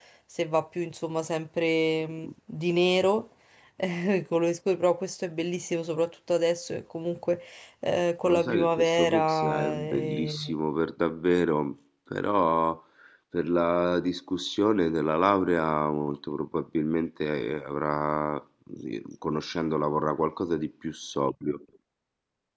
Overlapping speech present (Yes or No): Yes